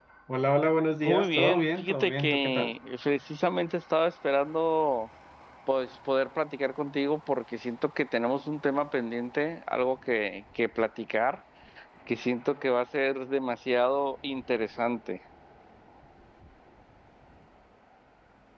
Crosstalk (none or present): present